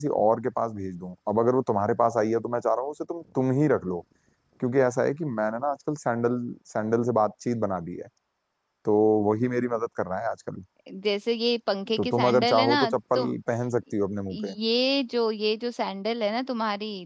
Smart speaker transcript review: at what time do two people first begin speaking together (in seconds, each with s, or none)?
12.0 s